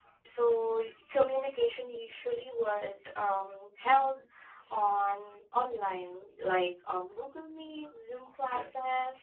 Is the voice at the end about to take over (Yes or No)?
No